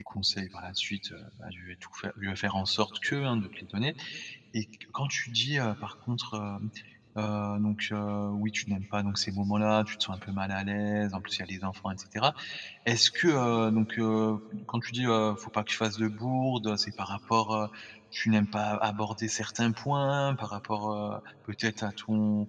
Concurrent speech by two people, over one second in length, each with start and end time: none

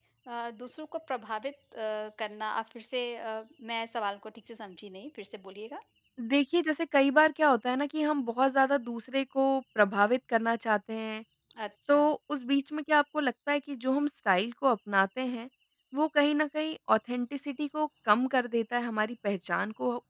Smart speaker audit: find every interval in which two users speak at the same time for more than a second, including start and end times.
none

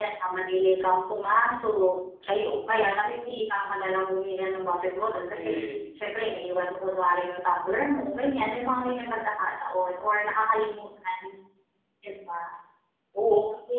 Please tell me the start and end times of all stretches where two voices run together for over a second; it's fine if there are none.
none

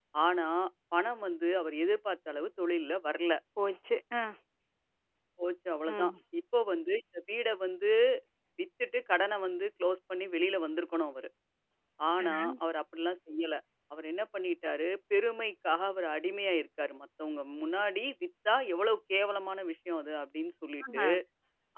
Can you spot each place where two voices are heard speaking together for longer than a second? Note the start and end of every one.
none

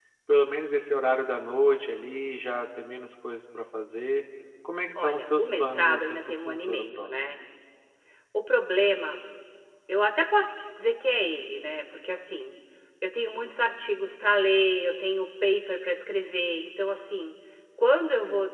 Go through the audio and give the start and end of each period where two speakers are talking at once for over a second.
5.0-7.4

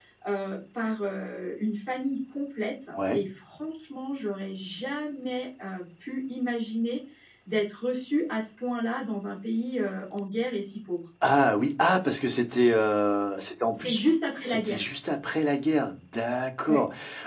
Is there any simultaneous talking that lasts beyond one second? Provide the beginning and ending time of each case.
none

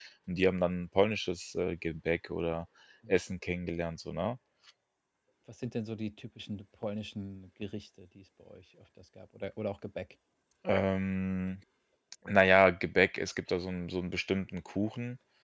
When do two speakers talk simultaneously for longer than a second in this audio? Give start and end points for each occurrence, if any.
none

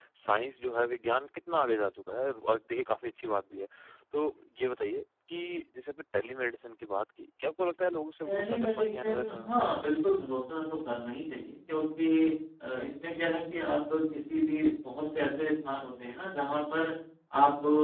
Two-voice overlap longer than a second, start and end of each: 8.2-9.6

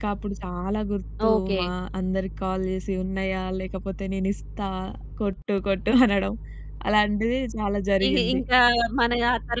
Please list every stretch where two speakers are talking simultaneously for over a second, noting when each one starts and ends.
none

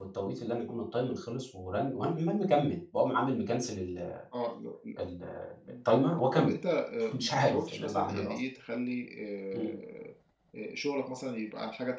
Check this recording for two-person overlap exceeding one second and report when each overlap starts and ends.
7.1-8.3

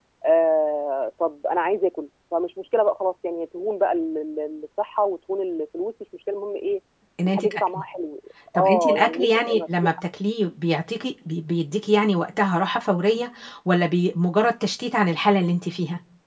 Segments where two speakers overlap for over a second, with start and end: 8.6-9.9

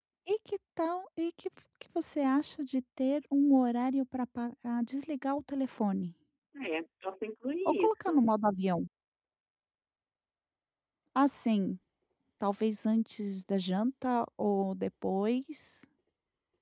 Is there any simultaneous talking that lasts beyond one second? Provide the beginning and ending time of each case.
none

